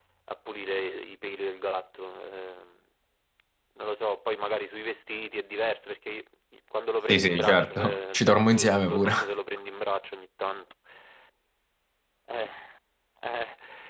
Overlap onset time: 7.1 s

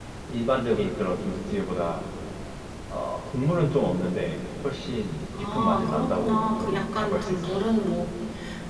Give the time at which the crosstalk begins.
5.3 s

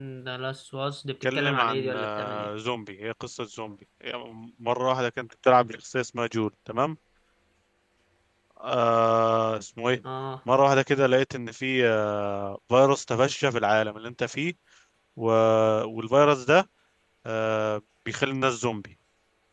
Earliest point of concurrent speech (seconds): 1.2 s

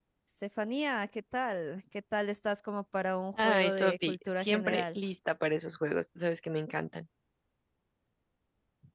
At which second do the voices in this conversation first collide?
3.4 s

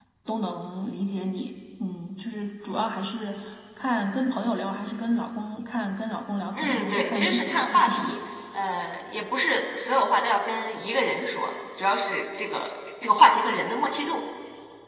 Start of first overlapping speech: 6.6 s

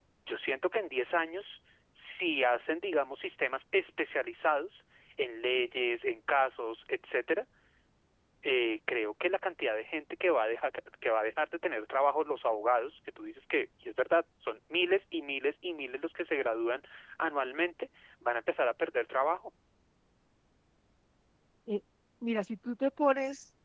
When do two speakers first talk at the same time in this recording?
none

